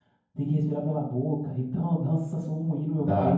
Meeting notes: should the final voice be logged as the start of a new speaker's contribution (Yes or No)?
Yes